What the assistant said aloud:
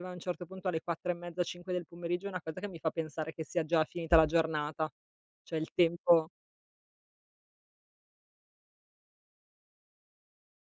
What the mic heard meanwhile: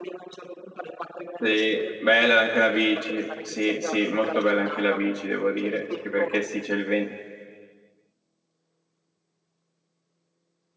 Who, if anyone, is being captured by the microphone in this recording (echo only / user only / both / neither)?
both